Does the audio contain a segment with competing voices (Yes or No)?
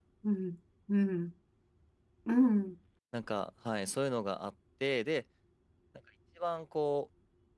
No